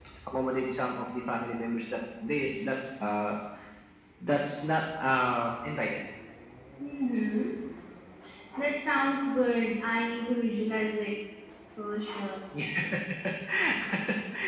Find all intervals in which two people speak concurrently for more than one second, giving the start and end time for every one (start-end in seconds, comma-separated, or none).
none